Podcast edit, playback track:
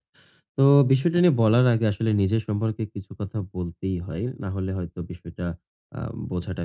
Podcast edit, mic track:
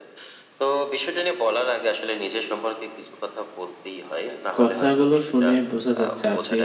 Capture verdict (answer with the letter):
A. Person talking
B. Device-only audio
A